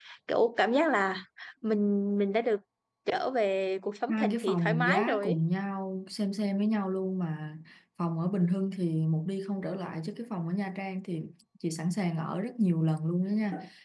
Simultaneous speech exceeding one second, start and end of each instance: 4.1-5.4

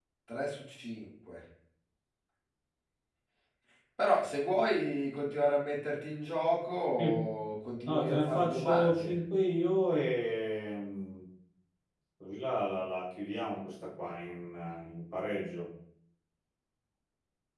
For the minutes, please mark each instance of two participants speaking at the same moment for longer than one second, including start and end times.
7.8-9.1

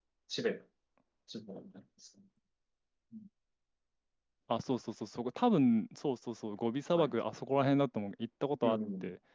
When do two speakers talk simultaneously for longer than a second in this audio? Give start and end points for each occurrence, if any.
none

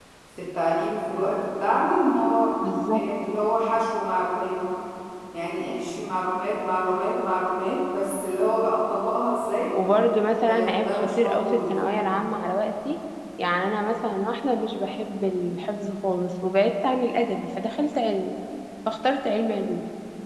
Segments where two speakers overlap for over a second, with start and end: 10.4-11.8

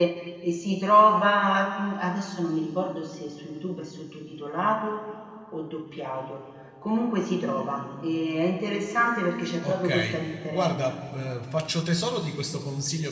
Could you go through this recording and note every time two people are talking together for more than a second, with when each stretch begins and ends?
9.6-11.0

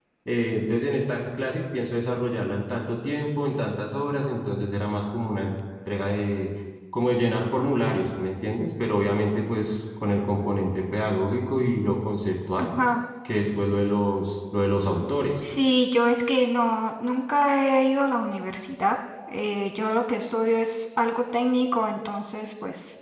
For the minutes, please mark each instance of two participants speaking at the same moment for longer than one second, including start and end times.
none

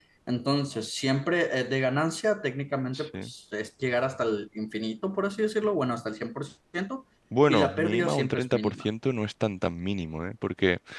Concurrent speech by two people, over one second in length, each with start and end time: 7.5-8.8

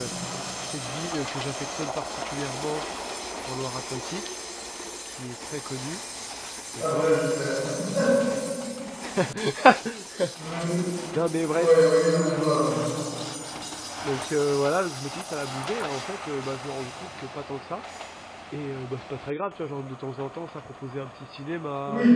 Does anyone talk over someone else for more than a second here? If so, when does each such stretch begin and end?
none

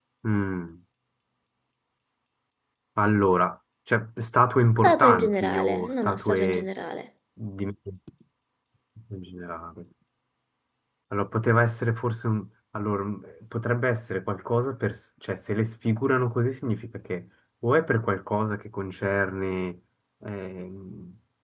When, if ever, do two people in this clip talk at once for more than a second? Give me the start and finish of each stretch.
4.8-6.7

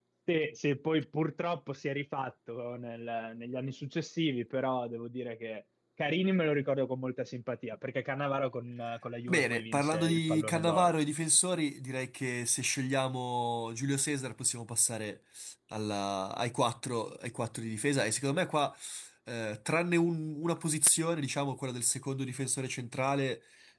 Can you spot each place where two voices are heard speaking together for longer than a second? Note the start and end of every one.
9.3-10.9

